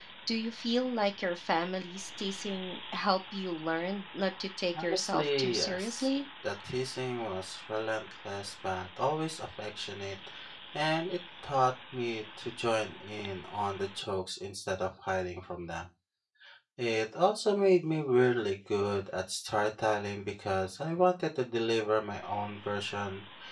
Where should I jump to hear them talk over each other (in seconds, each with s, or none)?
4.8 s